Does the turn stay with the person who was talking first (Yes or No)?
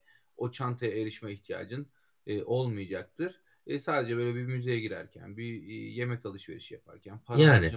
Yes